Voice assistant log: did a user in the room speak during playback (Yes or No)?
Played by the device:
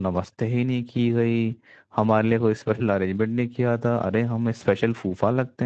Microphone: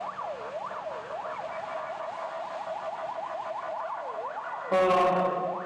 Yes